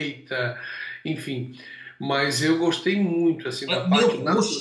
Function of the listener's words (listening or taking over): taking over